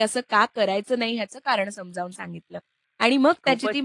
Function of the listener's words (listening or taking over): listening